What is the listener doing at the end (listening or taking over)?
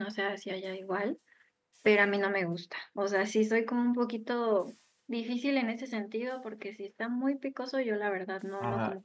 taking over